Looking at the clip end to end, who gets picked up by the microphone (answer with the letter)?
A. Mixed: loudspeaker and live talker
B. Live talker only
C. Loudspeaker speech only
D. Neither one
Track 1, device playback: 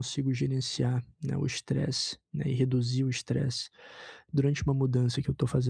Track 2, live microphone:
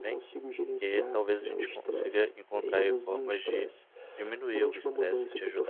A